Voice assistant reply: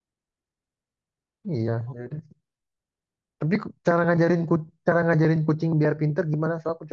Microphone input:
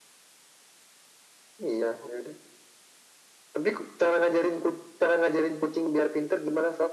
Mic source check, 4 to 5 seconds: echo only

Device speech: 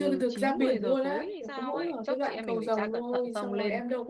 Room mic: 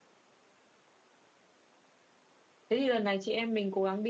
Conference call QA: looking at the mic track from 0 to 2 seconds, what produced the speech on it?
neither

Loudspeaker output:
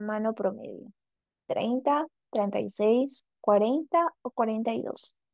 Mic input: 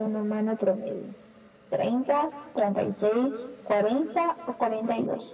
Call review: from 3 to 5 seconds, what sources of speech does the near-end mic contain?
echo only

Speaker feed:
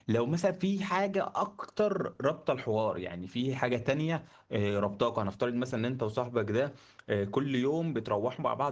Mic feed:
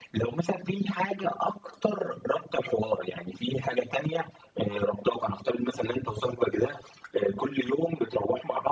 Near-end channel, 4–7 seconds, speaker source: echo only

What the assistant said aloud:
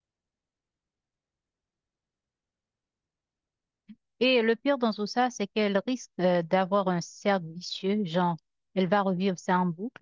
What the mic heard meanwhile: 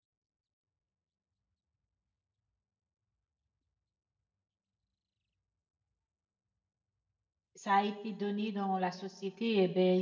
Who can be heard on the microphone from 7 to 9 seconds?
user only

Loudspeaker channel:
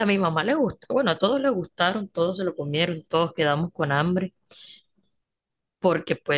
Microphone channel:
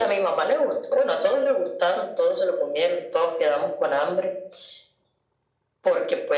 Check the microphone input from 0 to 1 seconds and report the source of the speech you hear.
echo only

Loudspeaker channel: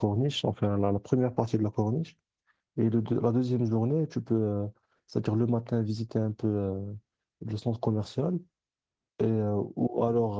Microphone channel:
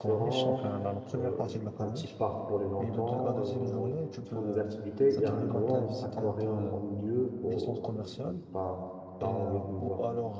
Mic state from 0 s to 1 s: both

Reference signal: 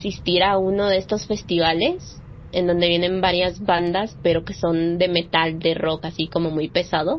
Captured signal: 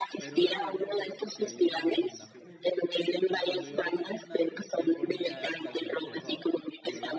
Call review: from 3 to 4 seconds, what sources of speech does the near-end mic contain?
both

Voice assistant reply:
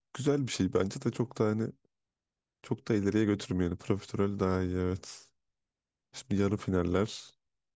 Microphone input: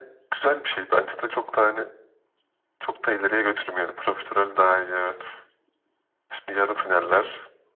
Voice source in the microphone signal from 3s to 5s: echo only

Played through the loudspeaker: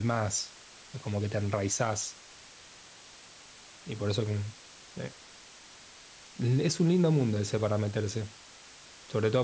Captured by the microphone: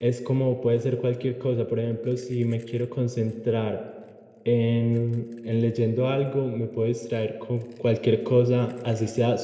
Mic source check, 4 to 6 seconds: user only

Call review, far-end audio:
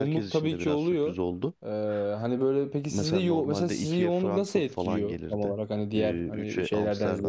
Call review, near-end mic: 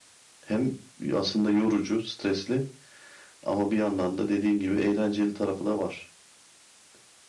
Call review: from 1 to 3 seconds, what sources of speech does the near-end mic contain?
user only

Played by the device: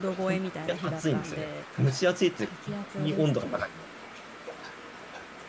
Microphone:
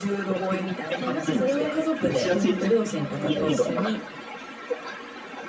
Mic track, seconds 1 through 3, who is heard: both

